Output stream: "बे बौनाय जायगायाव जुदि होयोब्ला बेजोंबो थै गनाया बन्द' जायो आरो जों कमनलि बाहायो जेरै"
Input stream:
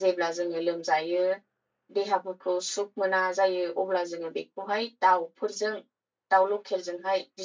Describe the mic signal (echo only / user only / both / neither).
user only